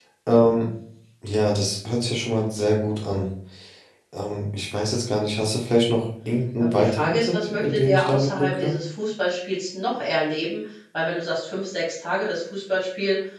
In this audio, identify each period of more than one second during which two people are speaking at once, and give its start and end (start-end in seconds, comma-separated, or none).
6.6-8.7